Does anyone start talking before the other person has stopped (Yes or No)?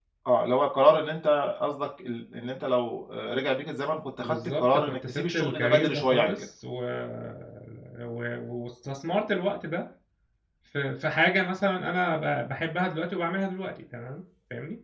Yes